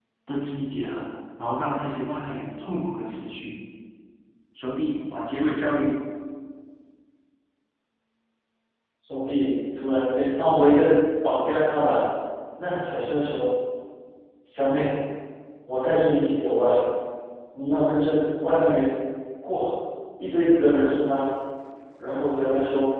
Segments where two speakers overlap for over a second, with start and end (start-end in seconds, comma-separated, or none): none